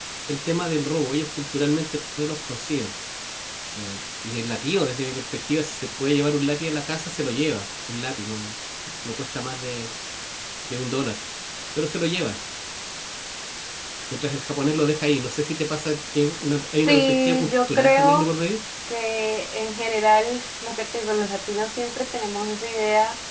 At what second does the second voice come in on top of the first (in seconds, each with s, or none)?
16.9 s